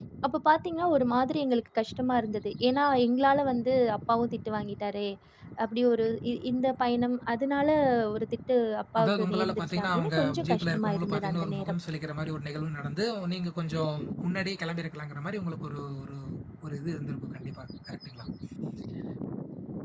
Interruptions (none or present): present